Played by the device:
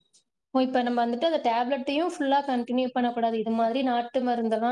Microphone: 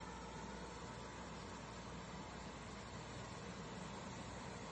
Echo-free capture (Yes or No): Yes